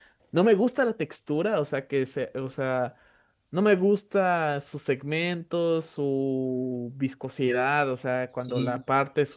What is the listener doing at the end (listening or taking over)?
listening